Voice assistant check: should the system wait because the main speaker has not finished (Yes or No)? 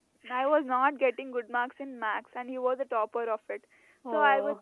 Yes